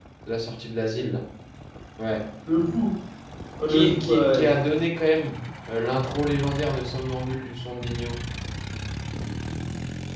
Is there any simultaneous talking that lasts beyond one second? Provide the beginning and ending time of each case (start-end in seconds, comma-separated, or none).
3.7-4.9